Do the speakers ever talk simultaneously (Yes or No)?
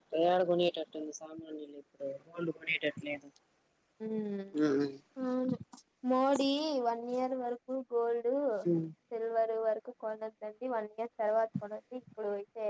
No